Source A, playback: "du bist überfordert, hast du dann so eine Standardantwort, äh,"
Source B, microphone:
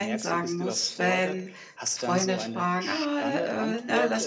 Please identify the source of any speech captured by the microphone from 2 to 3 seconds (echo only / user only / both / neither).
both